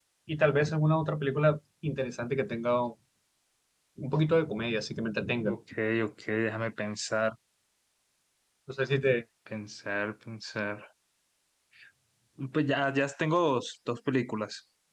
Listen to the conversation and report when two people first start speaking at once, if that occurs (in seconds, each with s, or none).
none